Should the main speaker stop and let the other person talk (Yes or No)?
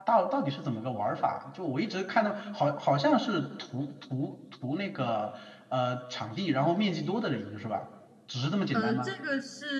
Yes